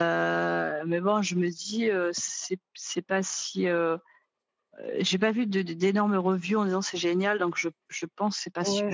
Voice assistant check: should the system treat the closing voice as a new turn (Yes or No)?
Yes